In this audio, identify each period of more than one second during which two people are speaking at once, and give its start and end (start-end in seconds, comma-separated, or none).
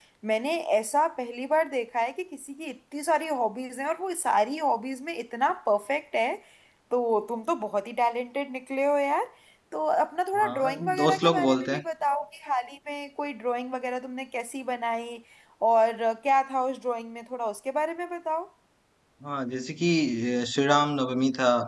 10.4-11.8